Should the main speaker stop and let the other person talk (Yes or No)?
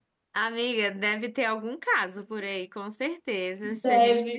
No